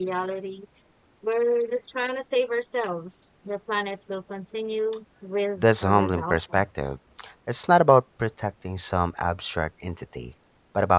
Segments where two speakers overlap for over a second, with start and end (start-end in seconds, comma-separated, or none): 5.6-6.9